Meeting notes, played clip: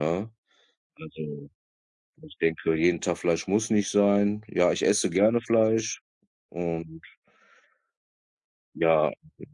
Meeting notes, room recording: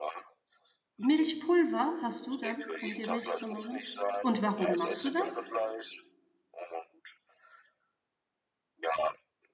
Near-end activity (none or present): present